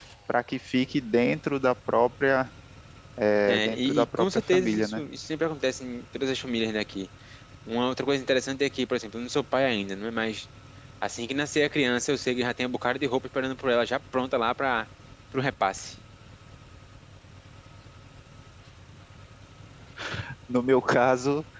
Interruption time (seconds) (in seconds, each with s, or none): 3.5 s